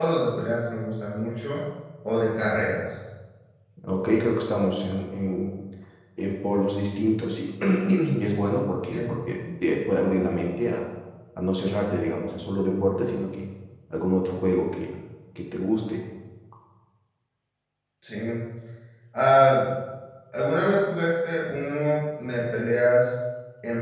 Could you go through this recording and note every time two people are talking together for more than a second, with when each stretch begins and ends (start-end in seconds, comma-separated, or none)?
none